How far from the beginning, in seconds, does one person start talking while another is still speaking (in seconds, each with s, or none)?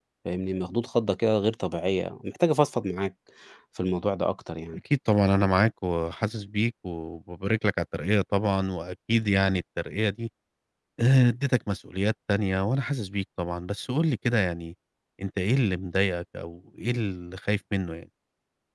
none